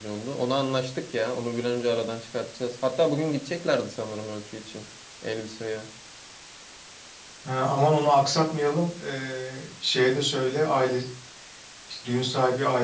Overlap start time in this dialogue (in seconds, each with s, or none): none